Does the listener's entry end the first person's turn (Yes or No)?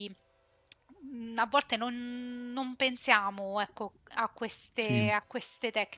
No